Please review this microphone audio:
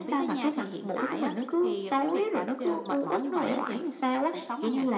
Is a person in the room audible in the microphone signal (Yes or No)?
No